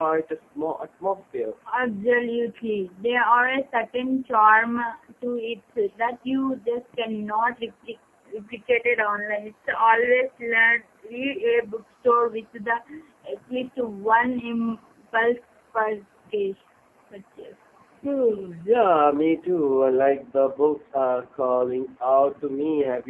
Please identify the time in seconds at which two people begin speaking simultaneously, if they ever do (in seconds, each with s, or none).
none